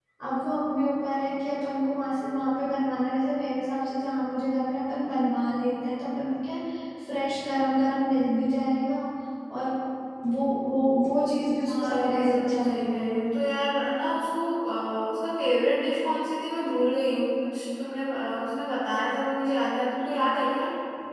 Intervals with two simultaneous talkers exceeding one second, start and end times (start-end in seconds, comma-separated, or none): 11.7-13.2